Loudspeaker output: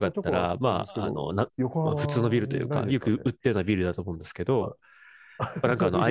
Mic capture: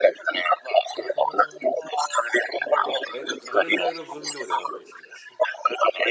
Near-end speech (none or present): present